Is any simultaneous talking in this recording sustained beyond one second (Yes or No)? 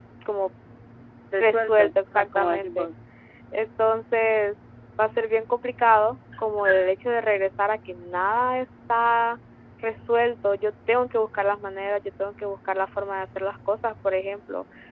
Yes